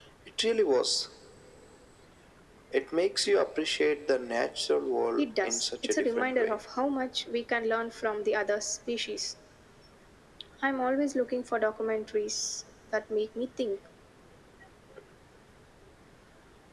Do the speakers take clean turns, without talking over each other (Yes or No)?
No